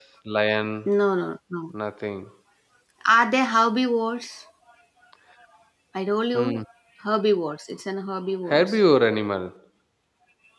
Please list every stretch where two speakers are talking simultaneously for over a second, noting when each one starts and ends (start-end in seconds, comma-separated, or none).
none